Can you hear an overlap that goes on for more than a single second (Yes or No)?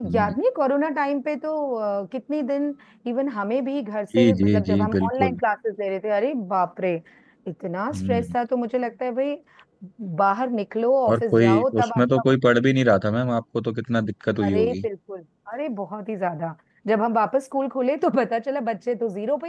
Yes